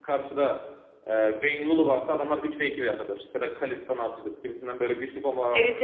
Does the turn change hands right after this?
No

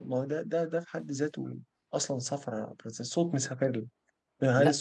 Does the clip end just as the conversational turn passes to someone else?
No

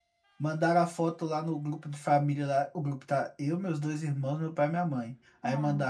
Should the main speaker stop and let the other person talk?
No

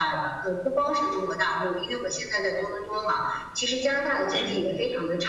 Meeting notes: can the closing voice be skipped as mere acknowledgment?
Yes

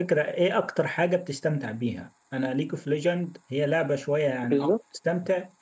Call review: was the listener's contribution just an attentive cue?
Yes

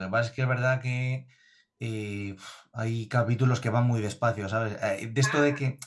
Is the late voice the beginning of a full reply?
No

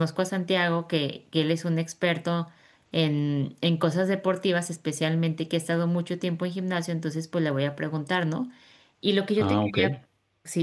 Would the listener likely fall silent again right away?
Yes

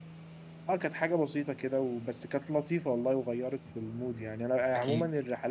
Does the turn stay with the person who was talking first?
Yes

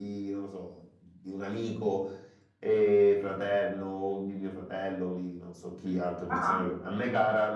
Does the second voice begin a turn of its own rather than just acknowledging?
No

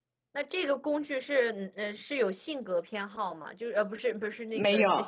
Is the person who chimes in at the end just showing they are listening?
Yes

